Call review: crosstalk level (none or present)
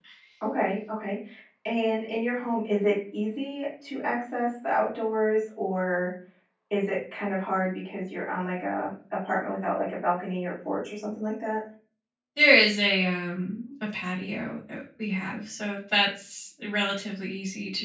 none